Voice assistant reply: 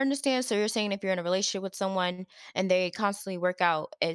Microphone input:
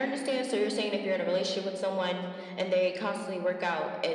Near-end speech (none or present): none